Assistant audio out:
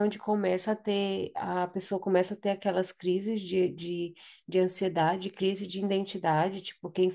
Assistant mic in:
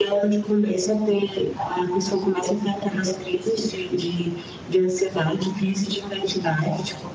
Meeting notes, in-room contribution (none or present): none